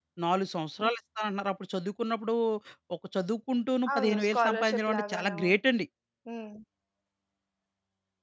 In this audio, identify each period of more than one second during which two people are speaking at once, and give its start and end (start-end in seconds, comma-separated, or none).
3.9-5.4